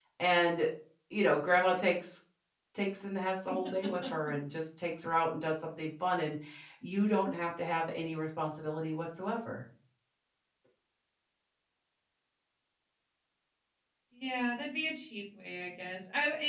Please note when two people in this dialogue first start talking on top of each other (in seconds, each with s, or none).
none